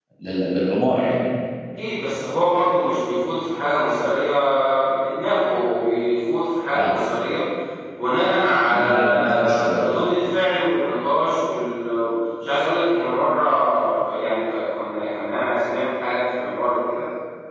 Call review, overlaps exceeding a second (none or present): present